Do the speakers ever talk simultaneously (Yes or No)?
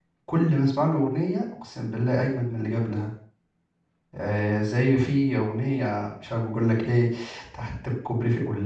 No